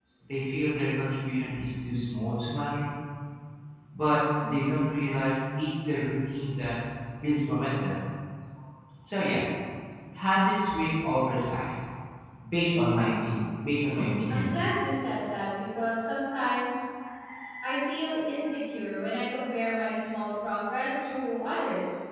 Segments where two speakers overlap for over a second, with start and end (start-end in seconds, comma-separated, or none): none